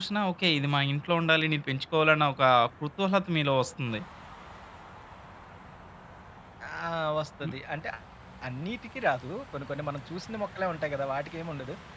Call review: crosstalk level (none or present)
none